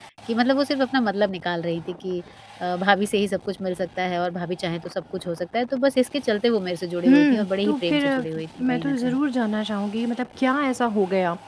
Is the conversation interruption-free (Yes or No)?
No